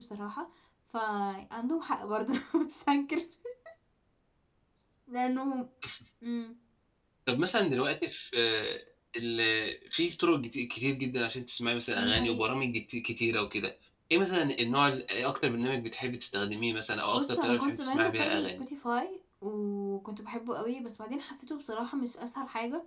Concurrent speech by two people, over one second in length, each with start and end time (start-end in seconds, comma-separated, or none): 17.1-18.6